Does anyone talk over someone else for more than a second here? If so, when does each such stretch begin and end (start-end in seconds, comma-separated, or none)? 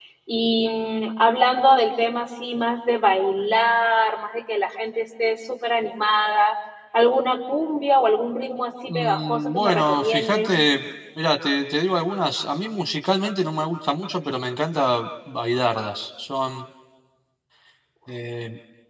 8.9-10.5